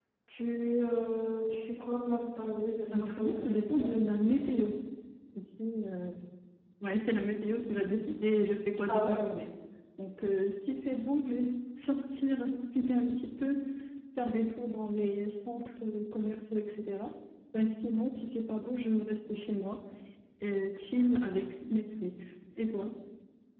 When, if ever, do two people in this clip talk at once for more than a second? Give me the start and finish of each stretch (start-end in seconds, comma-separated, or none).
2.9-4.6